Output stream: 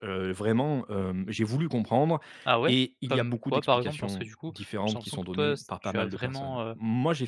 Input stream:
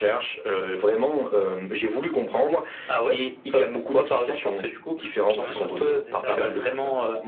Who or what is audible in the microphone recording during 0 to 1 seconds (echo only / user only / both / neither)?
echo only